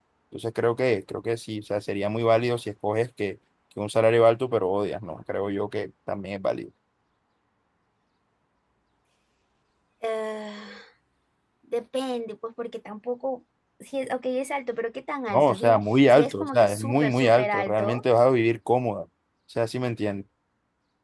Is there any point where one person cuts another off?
Yes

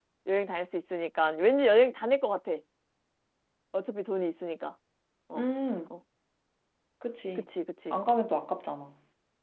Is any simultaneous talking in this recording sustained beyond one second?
No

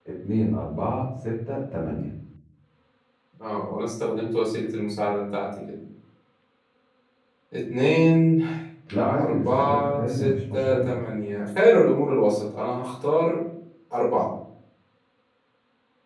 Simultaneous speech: Yes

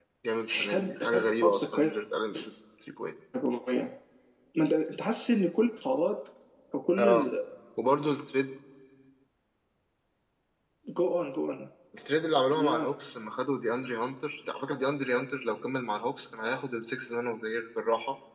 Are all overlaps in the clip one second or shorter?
No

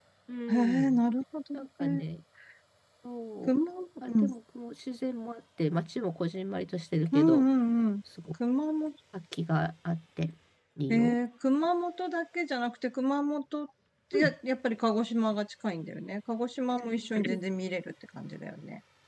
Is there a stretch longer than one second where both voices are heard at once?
No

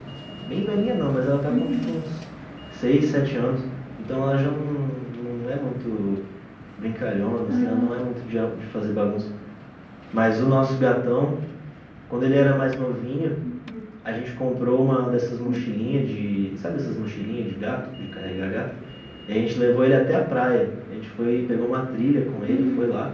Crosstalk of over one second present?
No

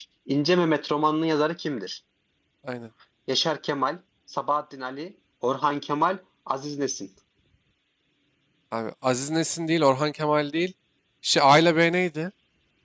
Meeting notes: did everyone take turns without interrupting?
Yes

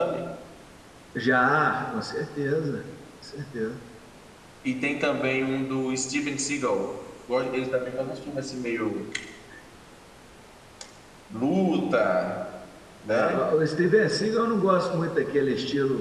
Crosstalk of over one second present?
No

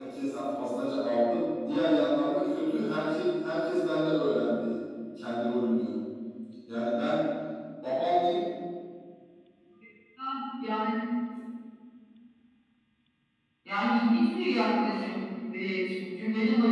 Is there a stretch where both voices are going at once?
No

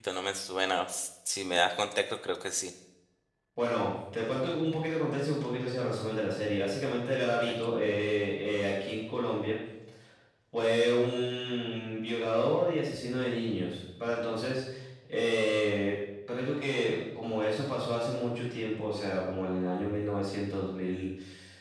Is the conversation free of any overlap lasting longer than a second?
Yes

